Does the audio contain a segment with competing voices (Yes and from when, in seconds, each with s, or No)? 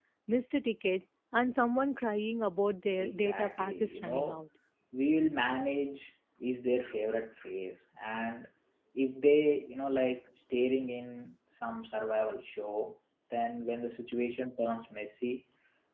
Yes, from 3.0 s